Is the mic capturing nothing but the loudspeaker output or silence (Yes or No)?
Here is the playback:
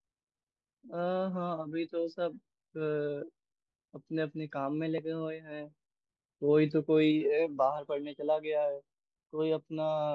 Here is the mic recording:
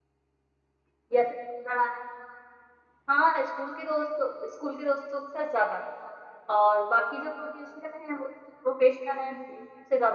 No